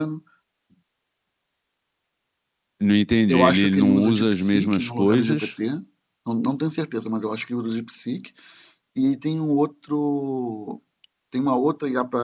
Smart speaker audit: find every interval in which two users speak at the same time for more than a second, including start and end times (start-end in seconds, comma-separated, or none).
3.3-5.5